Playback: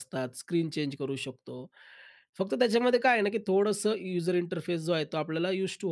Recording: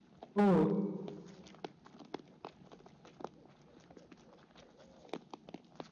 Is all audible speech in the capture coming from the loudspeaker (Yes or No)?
No